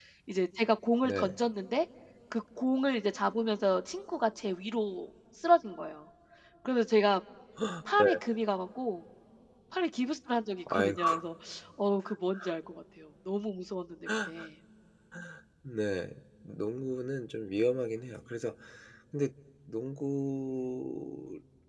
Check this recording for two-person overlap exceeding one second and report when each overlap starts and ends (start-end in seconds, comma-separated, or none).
none